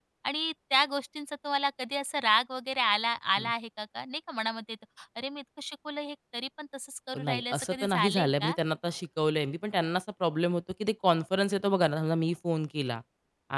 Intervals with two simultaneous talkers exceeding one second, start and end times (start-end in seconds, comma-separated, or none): 7.2-8.5